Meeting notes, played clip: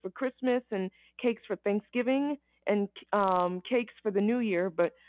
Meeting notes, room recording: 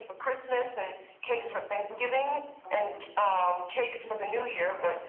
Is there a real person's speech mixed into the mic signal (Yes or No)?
Yes